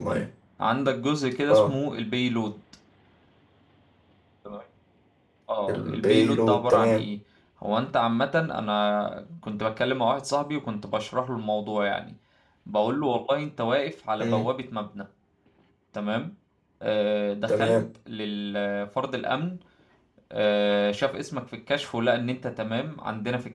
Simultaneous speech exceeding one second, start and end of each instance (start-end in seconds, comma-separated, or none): 5.7-7.0